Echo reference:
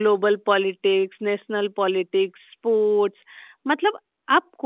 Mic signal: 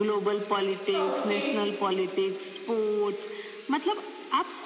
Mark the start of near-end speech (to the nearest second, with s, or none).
1 s